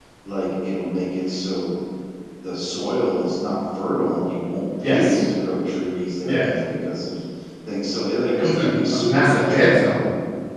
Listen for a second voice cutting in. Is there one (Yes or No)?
Yes